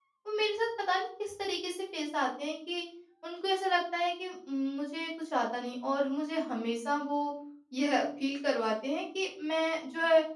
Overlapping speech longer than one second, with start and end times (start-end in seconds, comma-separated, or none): none